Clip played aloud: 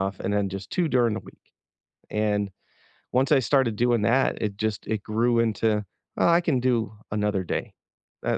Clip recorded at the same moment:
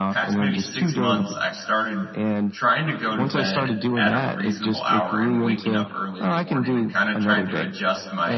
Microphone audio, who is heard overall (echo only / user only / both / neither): both